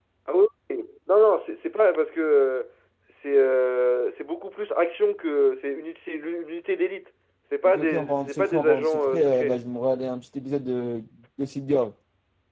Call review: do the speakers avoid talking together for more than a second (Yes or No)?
No